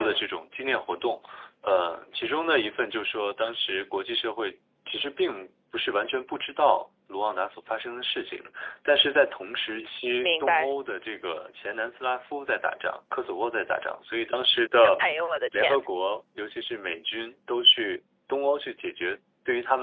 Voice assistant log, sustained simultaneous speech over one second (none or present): none